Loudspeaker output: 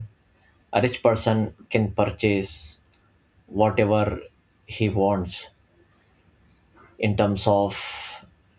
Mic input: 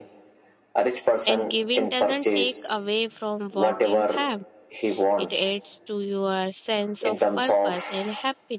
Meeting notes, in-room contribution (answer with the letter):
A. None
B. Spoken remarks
B